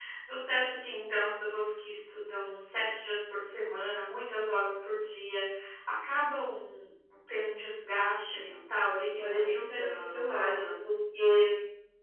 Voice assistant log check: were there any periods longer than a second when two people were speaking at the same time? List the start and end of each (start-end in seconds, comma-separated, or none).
9.2-10.7